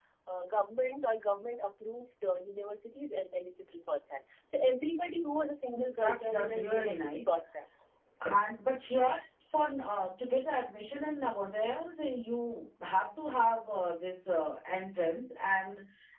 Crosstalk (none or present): present